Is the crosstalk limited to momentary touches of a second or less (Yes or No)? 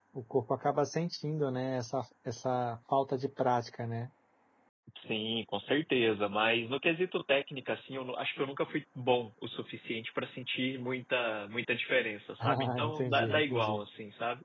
No